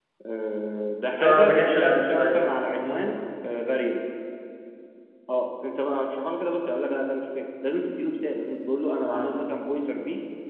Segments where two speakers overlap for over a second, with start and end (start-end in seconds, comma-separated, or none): 1.1-2.4